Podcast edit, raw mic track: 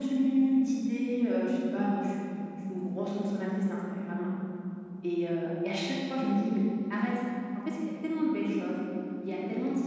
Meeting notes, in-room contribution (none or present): none